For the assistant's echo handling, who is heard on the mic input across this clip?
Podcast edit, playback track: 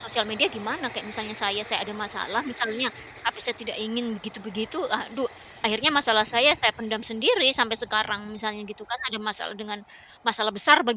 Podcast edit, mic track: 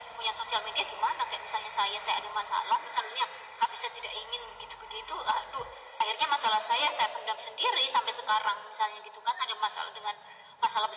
echo only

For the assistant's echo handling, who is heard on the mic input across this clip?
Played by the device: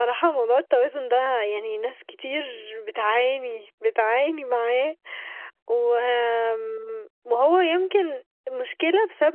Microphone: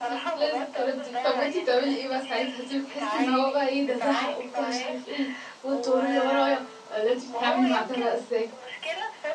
both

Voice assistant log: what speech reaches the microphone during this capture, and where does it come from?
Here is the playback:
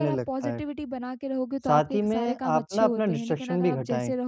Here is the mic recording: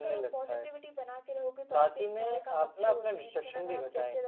echo only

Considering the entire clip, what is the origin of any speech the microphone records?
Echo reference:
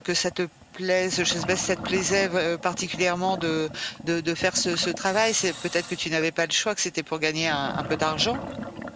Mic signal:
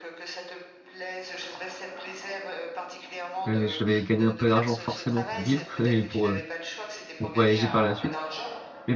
both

